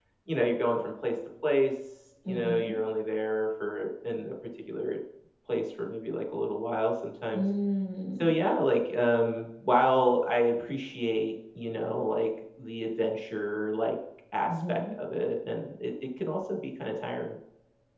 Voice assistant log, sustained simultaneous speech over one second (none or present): none